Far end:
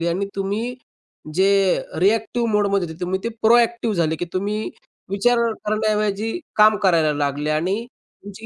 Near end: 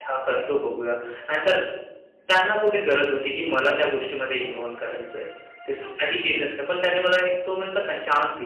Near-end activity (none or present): present